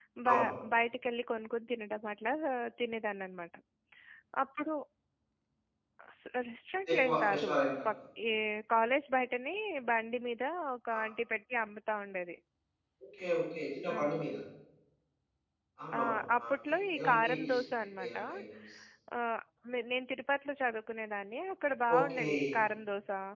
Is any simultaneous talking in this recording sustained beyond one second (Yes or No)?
Yes